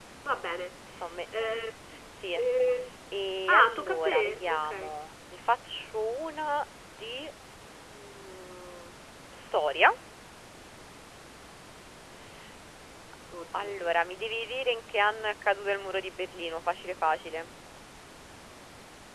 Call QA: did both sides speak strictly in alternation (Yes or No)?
No